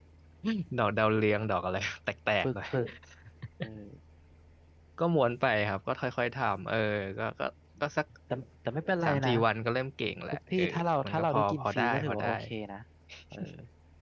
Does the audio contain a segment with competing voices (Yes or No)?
Yes